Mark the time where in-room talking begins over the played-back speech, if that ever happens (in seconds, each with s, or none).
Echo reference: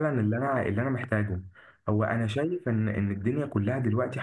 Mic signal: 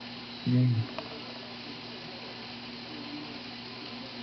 0.5 s